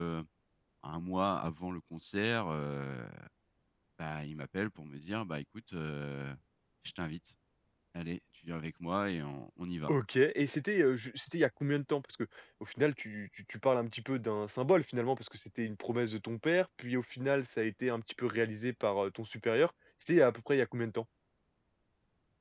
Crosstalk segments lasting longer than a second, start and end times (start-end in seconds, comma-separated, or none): none